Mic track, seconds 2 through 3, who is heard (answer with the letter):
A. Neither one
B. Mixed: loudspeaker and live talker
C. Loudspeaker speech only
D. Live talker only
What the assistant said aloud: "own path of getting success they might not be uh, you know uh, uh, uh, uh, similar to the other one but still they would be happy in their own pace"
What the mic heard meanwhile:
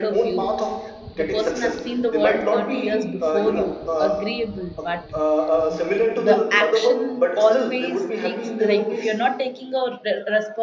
B